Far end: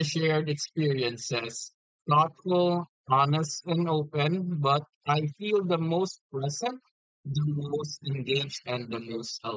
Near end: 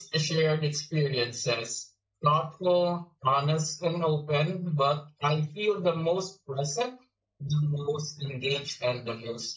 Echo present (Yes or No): Yes